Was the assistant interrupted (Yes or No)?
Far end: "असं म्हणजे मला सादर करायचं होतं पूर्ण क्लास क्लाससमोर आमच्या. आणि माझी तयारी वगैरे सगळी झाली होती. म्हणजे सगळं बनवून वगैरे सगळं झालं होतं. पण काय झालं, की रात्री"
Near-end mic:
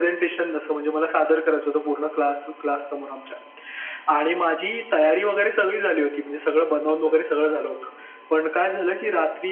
Yes